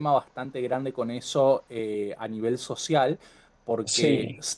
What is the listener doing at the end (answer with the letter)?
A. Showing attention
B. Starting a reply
A